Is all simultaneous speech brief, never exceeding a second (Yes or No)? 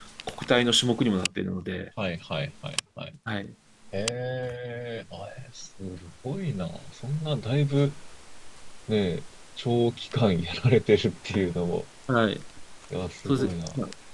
Yes